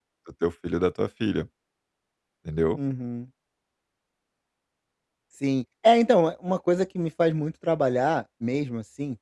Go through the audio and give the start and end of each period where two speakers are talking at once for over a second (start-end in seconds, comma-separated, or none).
none